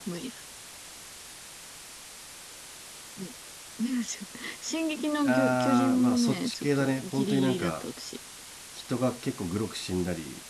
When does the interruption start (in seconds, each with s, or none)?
5.2 s